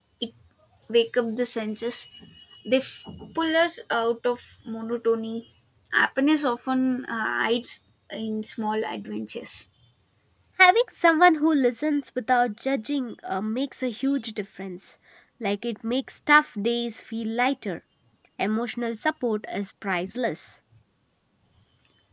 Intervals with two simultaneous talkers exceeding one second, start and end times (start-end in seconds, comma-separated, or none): none